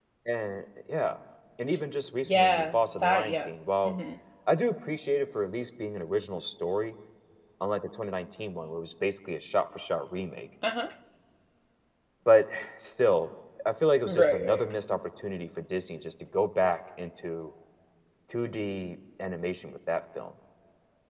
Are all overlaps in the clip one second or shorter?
No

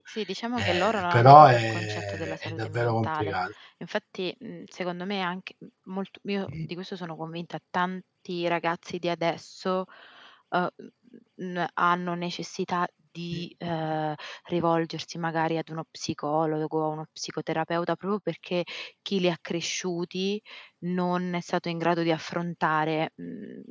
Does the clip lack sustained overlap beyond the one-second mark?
No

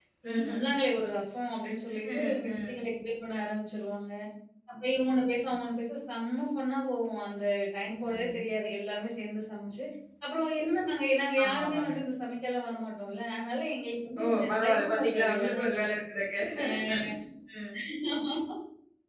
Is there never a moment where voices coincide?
No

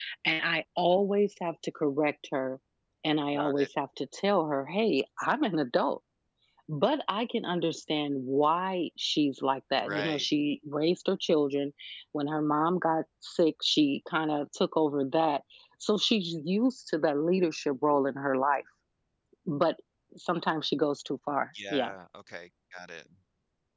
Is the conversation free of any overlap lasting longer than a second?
Yes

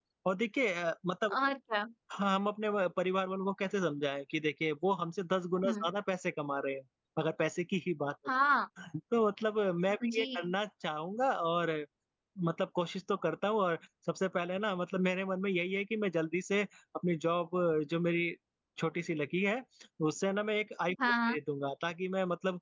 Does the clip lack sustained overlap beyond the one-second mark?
Yes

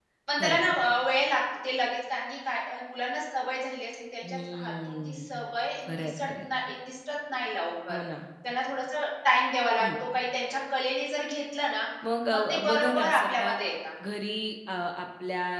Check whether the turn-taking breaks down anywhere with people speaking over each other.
Yes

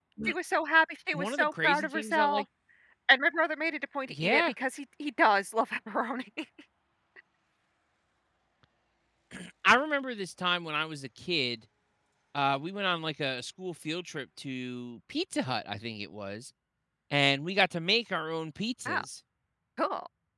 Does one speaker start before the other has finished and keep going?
Yes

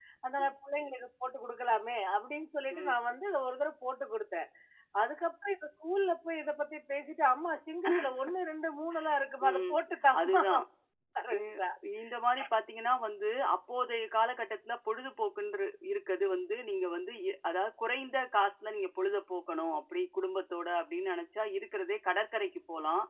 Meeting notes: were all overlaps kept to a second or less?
Yes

